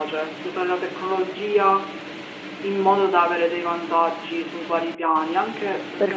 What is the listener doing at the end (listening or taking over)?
taking over